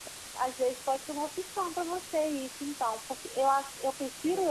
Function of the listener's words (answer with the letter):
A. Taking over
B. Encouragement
B